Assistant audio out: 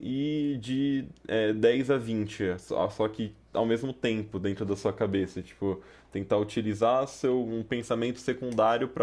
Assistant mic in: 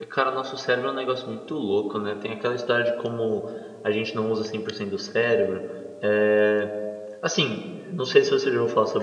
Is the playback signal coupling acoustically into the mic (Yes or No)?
No